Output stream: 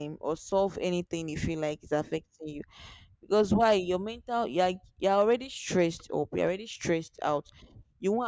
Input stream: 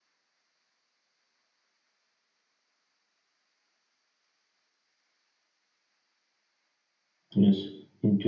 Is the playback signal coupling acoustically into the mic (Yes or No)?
No